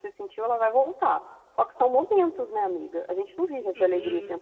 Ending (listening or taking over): taking over